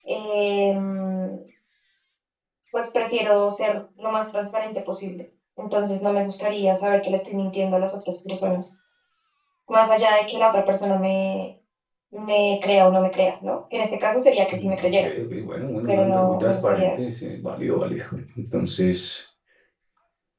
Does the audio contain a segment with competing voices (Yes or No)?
Yes